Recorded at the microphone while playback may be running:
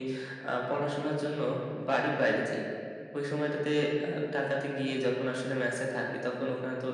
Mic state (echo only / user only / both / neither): echo only